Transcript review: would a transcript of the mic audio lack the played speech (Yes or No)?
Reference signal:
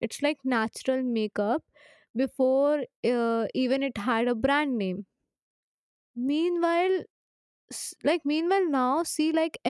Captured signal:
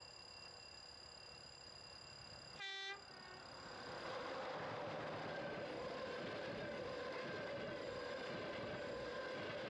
Yes